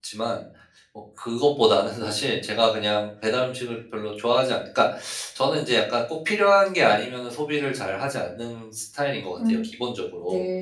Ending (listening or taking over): taking over